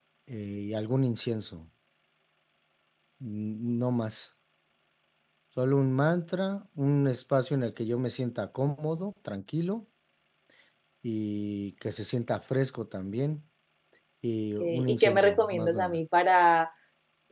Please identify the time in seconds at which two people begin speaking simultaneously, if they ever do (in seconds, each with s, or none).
14.6 s